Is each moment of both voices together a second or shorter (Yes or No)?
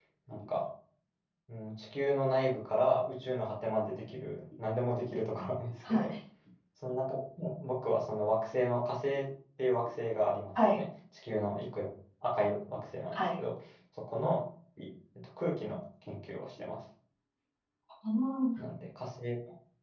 Yes